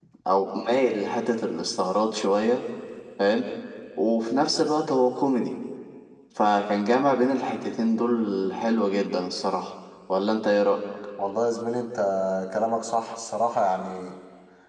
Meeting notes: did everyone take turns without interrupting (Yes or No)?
Yes